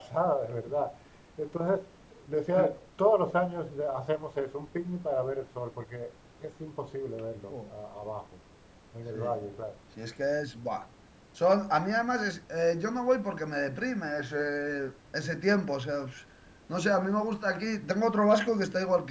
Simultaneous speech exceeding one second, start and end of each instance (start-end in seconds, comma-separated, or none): none